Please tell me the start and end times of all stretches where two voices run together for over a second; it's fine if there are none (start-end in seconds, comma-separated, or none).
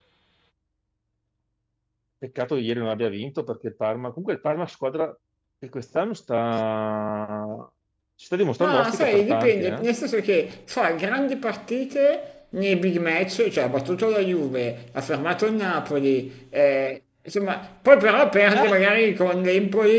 8.6-9.8